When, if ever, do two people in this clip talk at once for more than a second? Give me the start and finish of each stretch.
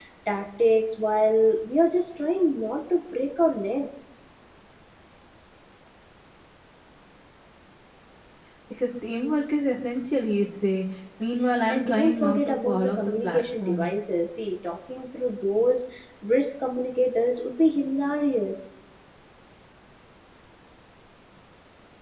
11.7-13.9

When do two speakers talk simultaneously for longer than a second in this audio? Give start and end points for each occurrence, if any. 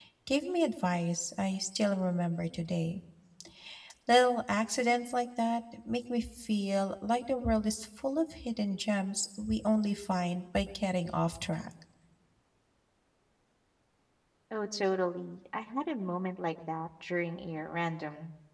none

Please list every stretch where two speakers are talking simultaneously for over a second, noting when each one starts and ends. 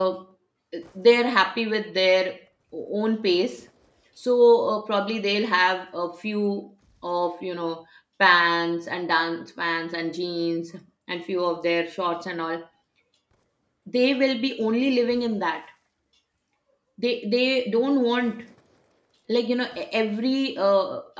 none

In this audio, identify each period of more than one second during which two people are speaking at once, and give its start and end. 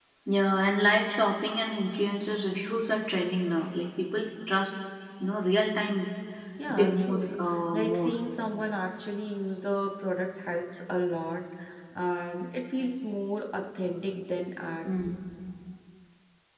6.7-8.2

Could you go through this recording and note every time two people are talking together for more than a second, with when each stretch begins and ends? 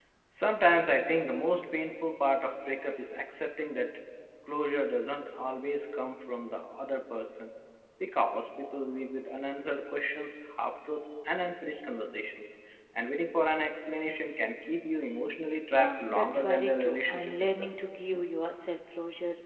15.7-17.7

